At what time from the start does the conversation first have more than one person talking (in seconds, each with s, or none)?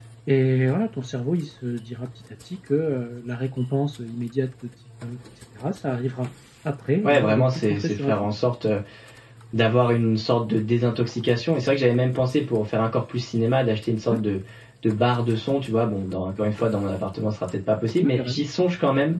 7.0 s